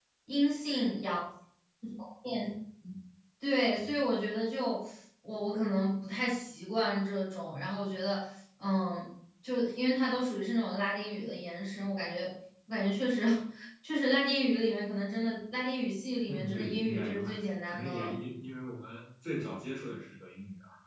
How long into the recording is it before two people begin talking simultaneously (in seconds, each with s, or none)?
16.3 s